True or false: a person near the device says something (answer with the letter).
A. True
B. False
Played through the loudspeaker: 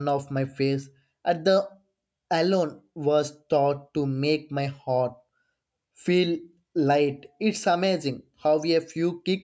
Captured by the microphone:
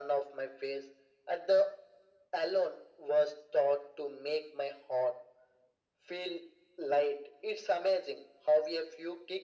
B